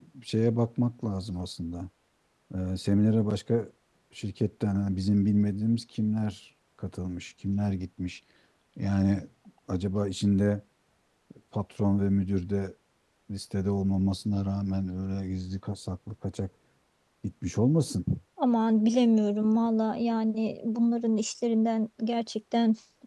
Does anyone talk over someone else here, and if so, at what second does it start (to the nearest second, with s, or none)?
none